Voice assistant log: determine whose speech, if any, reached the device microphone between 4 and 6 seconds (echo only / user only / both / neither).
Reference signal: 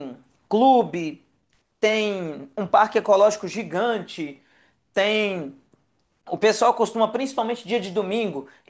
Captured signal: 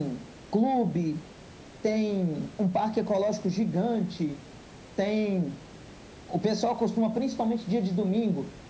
echo only